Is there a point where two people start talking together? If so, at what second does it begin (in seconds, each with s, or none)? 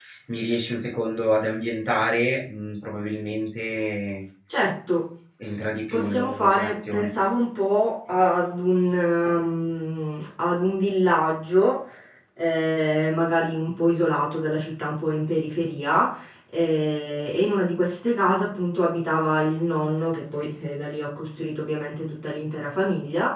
5.9 s